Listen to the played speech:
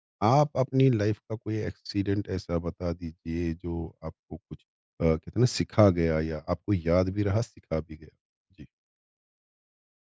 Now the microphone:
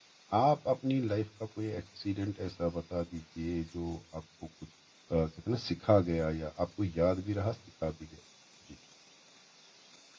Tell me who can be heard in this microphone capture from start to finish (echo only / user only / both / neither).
echo only